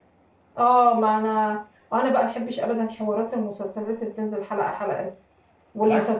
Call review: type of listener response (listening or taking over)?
listening